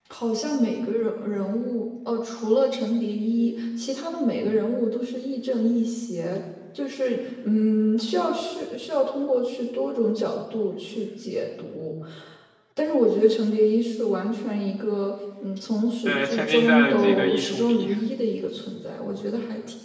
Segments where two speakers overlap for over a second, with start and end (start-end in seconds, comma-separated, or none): 16.1-17.9